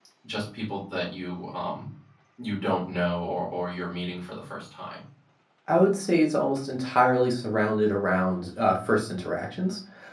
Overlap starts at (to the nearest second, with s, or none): none